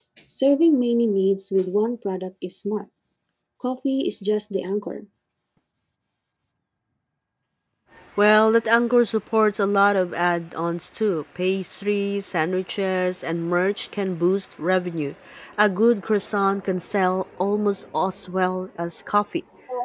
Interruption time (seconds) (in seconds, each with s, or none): none